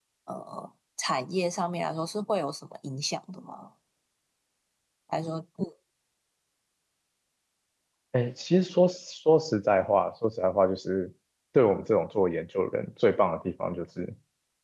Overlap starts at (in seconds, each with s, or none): none